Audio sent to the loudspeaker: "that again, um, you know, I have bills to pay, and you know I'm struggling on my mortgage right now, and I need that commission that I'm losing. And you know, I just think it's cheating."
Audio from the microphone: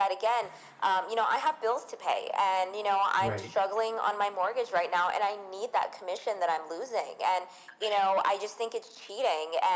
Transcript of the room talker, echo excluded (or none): Right.